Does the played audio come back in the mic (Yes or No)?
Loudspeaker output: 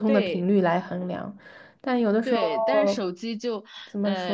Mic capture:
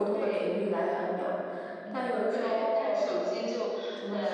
Yes